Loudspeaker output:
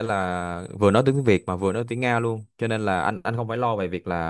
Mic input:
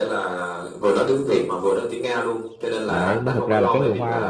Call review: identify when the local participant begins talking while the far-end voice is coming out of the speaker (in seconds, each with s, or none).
2.9 s